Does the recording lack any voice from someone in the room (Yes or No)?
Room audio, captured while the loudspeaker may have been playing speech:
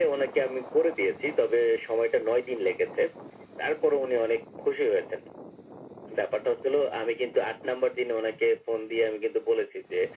Yes